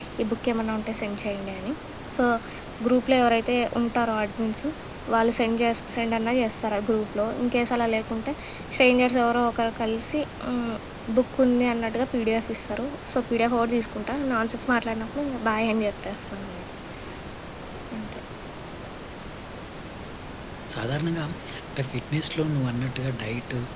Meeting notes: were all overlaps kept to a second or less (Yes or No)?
Yes